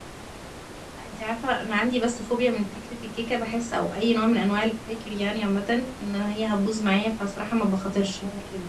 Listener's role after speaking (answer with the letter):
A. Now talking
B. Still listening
B